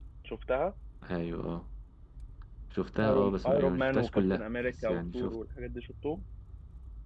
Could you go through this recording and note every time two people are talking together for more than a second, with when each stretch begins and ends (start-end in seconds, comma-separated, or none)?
3.0-5.4